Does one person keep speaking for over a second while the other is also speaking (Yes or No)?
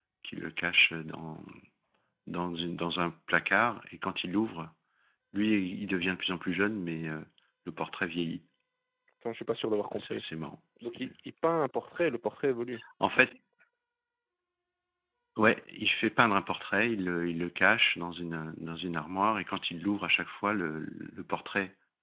No